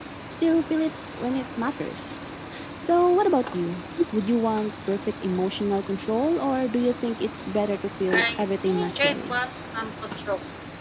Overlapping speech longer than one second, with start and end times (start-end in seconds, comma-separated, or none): 8.1-9.4